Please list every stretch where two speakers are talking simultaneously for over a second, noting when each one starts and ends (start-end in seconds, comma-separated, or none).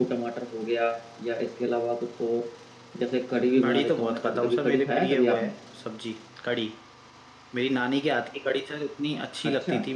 3.6-5.4